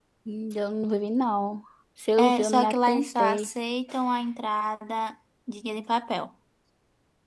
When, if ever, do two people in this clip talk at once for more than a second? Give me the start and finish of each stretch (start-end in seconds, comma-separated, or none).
2.2-3.5